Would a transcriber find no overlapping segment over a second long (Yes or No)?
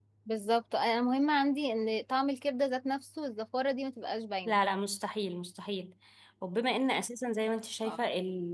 Yes